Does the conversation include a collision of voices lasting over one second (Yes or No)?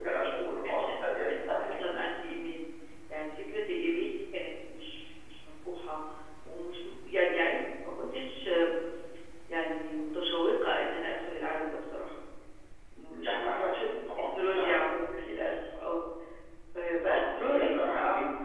Yes